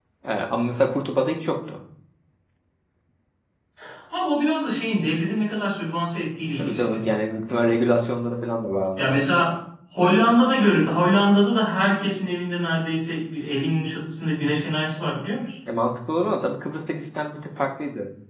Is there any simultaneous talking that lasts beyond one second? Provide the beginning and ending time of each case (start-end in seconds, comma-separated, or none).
none